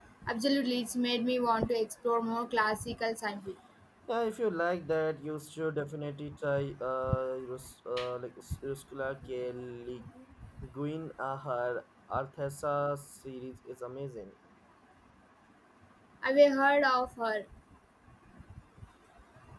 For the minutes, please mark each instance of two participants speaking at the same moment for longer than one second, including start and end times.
none

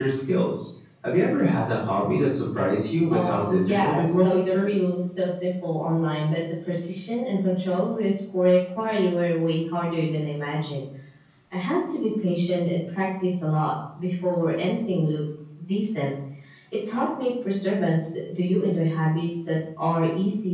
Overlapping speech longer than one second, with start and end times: 3.1-4.9

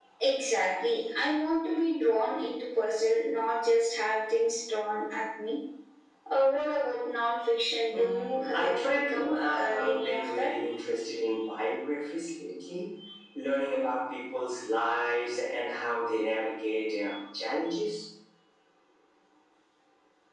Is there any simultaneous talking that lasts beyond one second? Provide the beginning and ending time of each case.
7.9-10.5

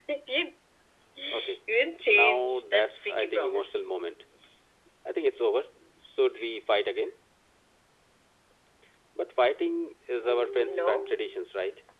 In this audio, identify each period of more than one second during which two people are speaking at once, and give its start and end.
2.0-3.9

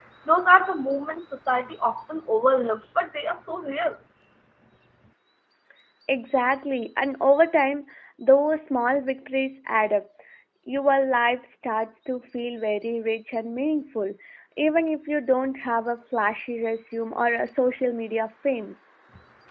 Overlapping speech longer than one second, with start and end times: none

